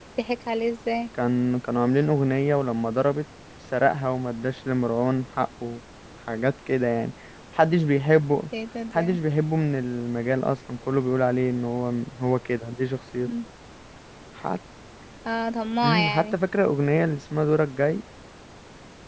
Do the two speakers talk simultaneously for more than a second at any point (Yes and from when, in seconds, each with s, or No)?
No